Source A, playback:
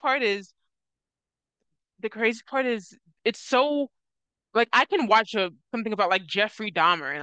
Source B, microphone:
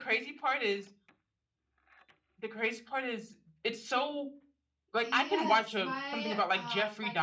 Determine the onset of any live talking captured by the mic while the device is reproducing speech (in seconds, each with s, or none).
5.0 s